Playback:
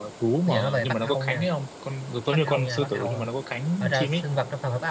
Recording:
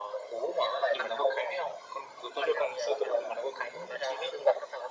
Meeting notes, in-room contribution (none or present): none